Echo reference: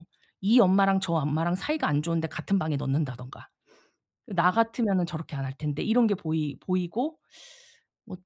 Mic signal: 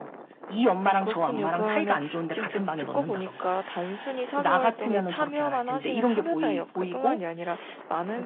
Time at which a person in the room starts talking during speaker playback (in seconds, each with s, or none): 0.8 s